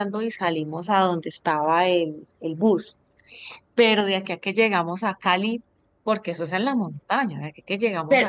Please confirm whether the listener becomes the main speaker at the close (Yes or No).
Yes